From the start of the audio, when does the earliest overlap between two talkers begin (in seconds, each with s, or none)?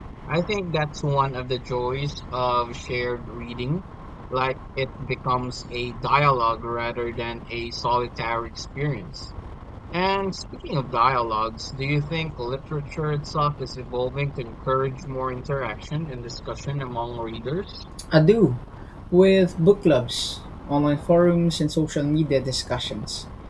none